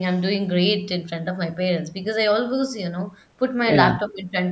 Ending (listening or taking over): listening